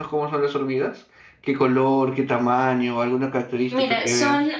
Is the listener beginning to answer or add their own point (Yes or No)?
Yes